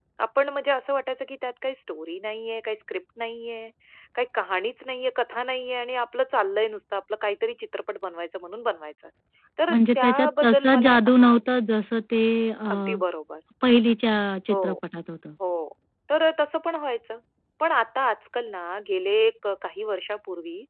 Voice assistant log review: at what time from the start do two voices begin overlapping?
9.7 s

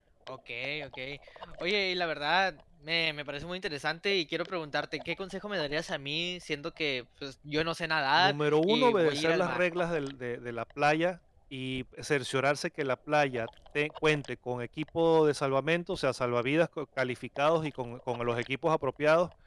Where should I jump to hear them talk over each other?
8.2 s

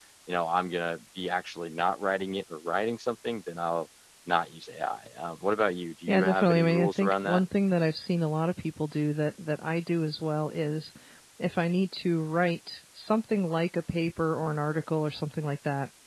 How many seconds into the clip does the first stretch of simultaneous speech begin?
6.1 s

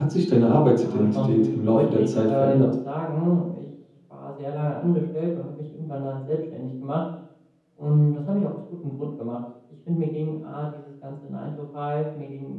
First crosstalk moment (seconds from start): 0.8 s

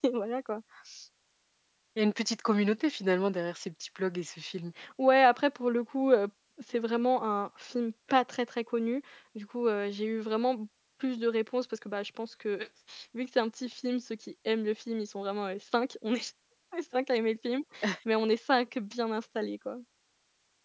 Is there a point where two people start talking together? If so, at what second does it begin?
none

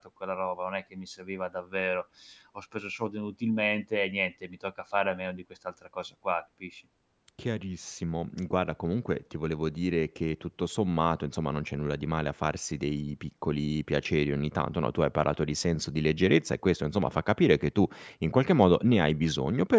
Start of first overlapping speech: none

